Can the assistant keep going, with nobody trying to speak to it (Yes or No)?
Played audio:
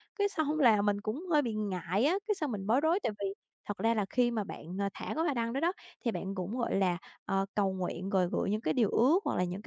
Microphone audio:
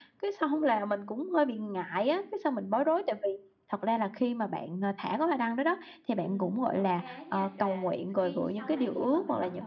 No